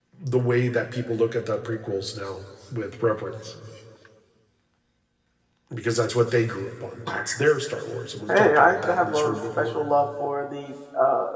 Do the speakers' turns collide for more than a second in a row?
Yes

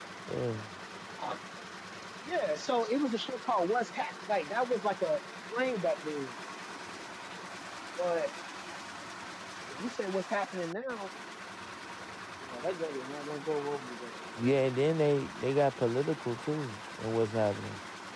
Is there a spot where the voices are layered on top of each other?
No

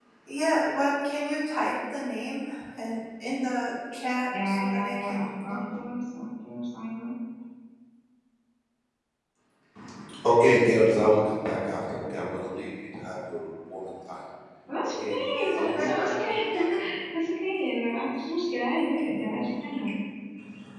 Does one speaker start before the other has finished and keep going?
Yes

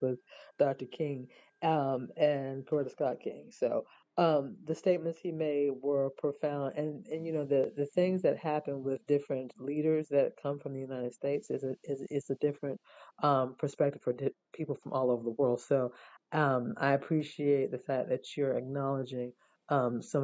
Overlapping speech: No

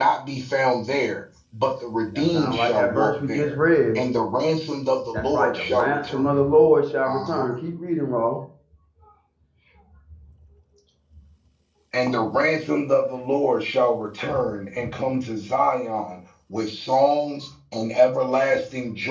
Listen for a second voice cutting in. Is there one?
Yes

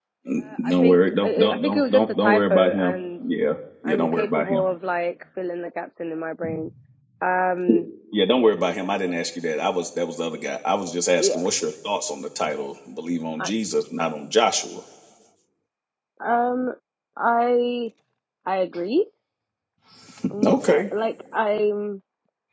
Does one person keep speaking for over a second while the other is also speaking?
Yes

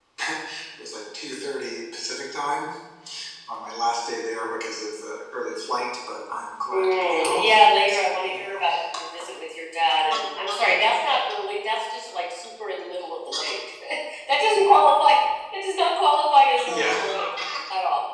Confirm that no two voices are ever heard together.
No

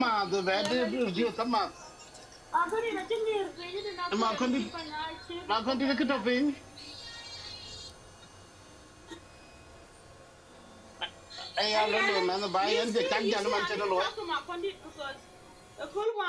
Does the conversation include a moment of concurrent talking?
Yes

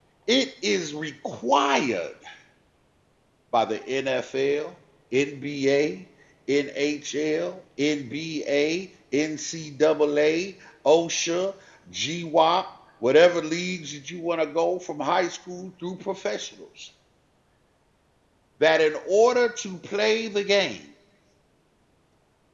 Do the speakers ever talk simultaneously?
No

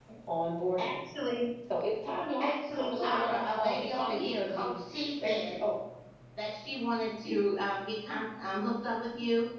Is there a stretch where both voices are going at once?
Yes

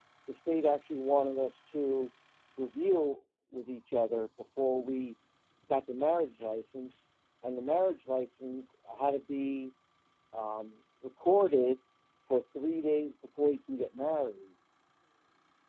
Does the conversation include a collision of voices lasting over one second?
No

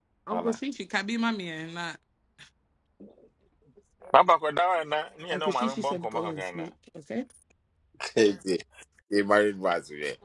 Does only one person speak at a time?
No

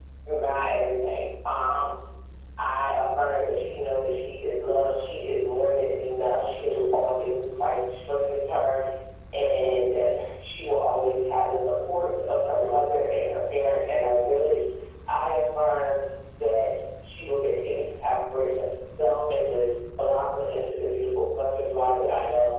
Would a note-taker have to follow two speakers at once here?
No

